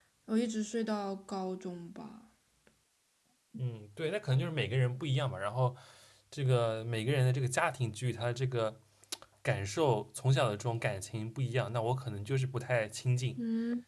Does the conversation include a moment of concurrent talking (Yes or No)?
No